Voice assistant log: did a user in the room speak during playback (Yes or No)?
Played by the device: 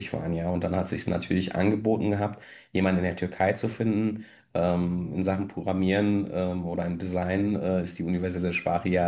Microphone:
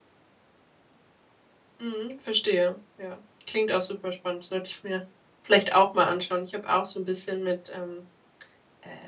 Yes